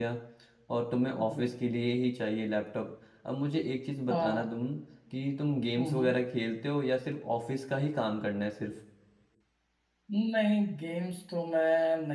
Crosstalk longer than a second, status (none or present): none